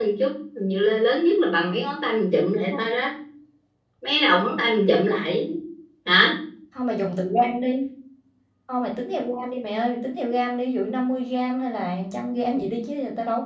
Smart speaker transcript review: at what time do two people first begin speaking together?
none

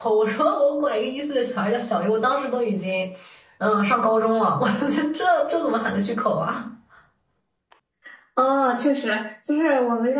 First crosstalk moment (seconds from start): none

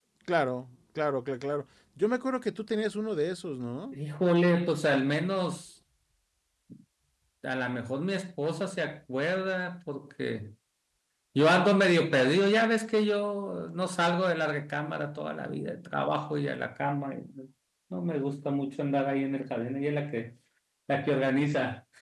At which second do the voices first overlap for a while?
none

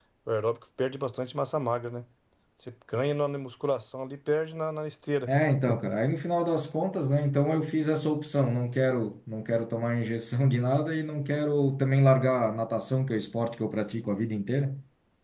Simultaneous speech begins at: none

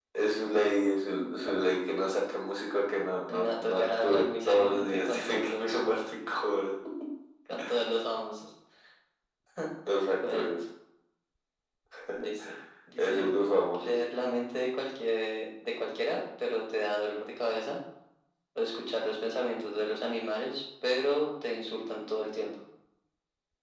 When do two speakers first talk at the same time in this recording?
3.3 s

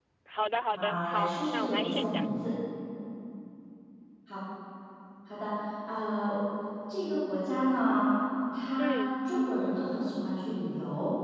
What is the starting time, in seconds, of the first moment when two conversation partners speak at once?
0.7 s

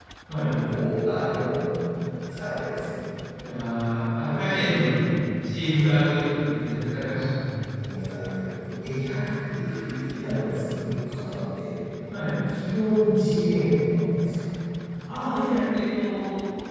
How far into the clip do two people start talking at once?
none

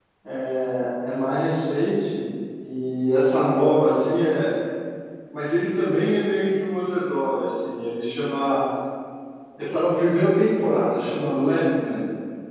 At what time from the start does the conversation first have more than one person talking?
none

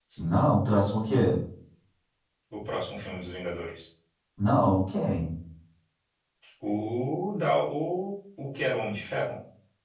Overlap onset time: none

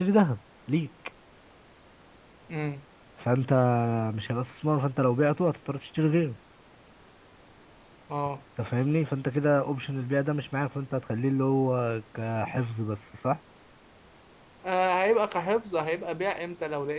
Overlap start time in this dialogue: none

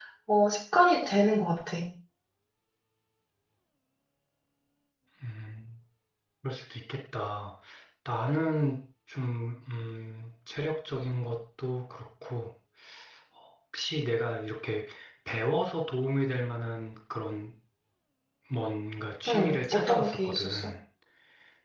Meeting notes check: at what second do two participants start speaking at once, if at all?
19.3 s

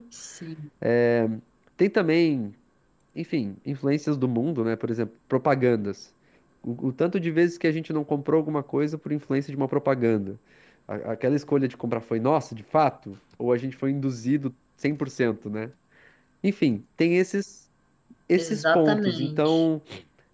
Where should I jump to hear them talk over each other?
18.4 s

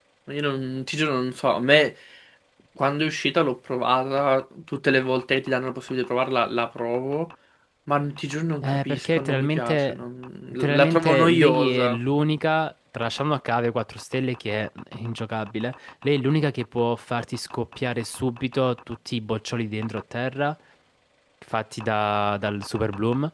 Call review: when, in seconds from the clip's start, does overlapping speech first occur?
8.6 s

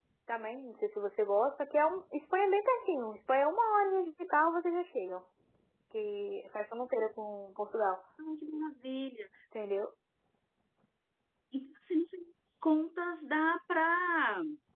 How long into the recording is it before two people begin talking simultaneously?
none

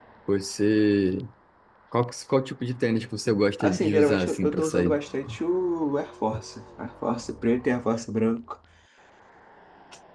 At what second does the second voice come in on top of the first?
3.6 s

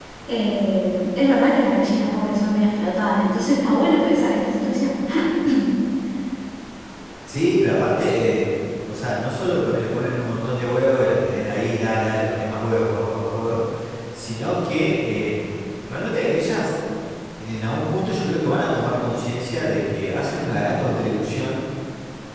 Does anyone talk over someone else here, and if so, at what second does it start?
none

